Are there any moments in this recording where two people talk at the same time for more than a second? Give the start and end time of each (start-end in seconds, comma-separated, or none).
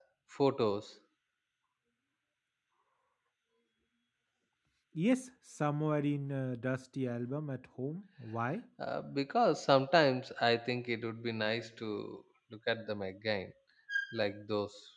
none